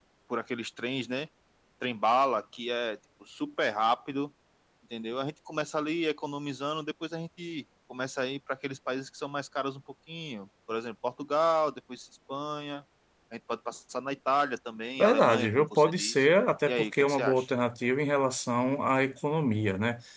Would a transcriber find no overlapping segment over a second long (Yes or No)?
No